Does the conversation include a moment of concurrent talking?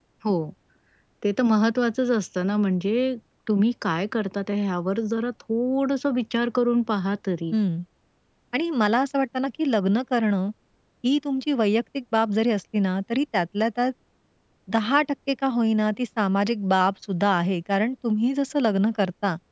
No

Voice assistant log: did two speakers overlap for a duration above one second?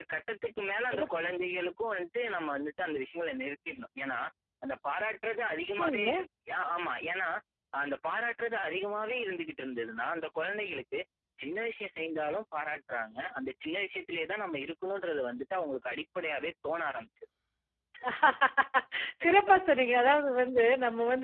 No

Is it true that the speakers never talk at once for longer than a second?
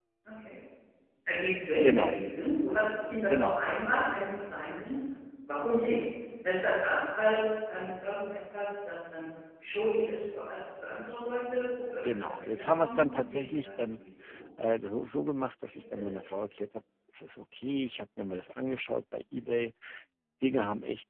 No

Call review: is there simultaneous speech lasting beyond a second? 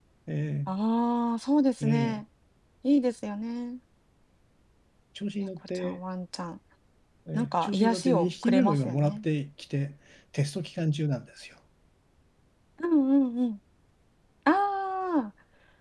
Yes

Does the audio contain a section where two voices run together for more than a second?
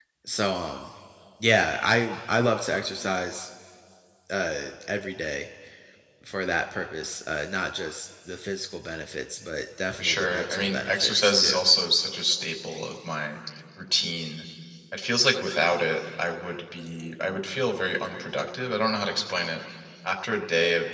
Yes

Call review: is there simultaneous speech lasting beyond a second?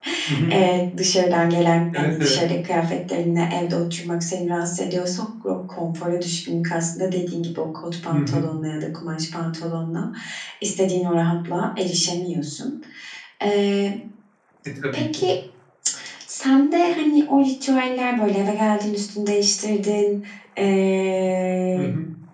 No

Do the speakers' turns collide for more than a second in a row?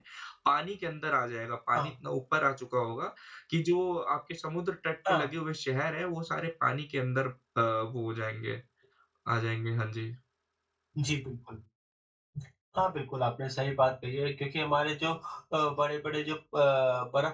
No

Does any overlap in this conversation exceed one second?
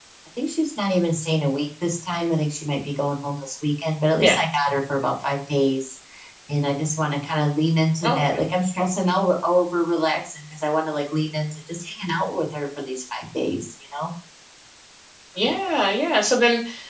No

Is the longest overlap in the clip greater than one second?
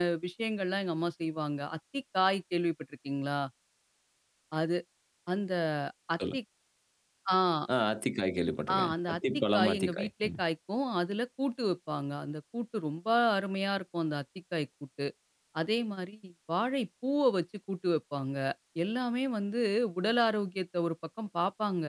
Yes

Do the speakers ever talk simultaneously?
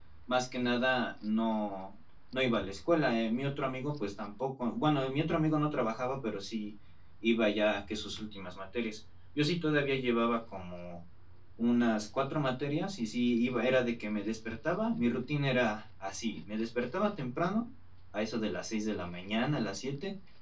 No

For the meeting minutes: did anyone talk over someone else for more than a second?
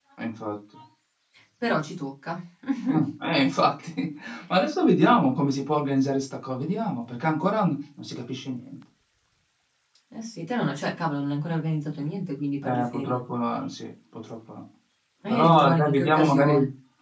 Yes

